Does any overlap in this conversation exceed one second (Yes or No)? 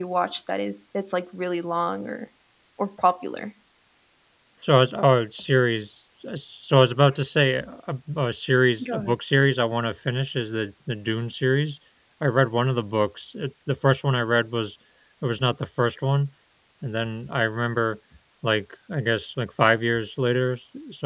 No